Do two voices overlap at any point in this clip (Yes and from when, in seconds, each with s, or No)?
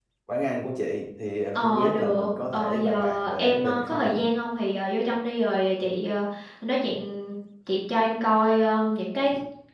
Yes, from 1.6 s